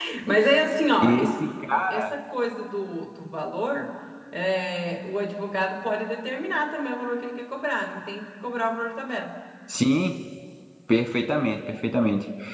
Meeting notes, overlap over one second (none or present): none